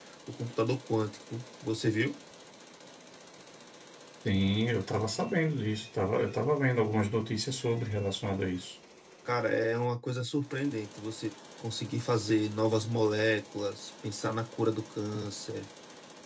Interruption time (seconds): none

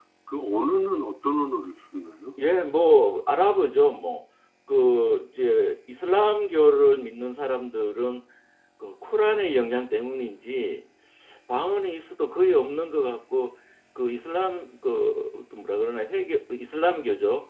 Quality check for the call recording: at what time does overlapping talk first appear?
none

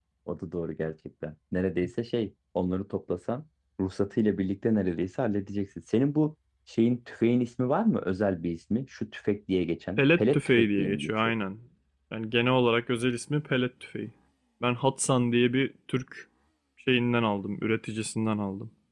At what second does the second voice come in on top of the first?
10.0 s

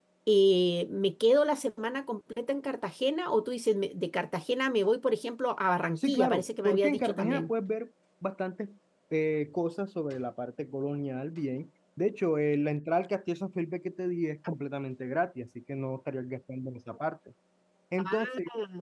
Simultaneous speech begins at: 6.0 s

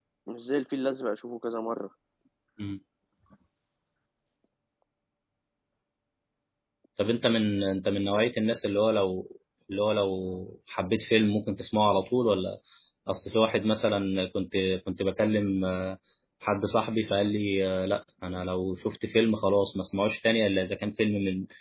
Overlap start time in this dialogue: none

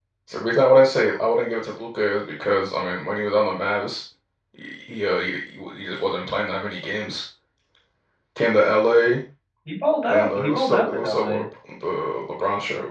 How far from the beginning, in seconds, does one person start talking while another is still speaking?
10.1 s

